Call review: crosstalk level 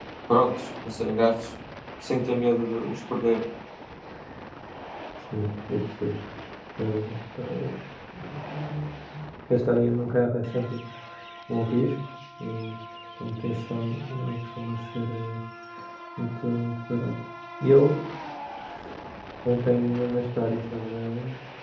none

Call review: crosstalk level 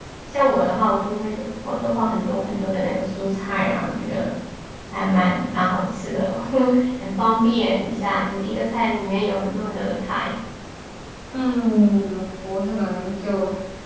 none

